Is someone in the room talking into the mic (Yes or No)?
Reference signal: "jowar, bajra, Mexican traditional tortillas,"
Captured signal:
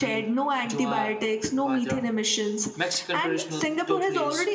Yes